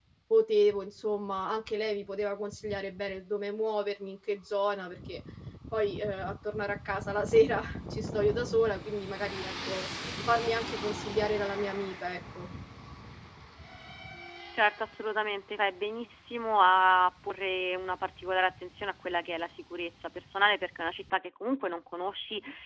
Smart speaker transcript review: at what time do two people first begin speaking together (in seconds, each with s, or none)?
none